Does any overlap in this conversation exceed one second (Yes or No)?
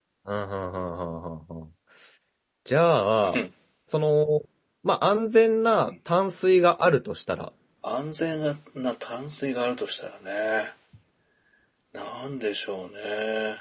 No